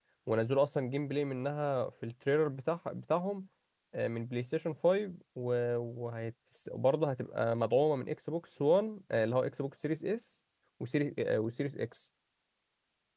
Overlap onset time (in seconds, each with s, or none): none